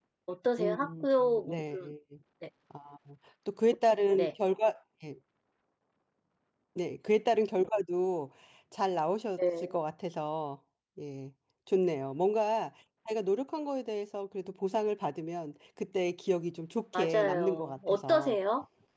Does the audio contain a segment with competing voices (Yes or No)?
Yes